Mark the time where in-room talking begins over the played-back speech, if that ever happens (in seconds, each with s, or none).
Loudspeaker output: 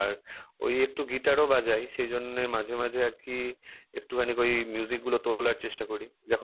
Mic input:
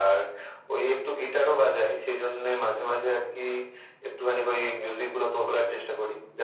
none